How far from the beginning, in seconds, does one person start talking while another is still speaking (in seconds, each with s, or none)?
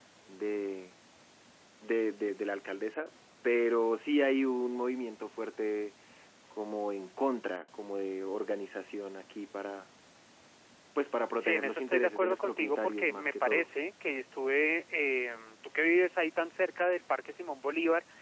11.4 s